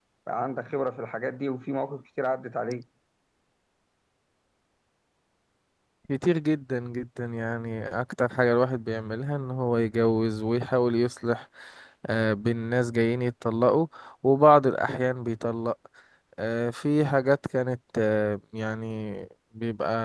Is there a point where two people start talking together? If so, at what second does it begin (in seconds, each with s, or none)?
none